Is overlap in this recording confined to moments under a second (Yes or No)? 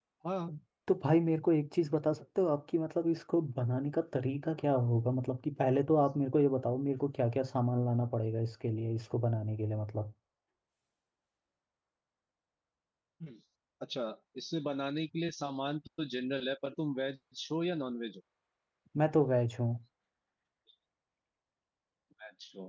Yes